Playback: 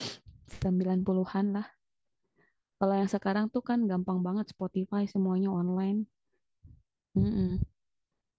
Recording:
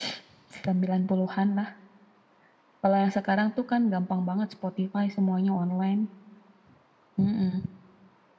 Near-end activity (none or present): none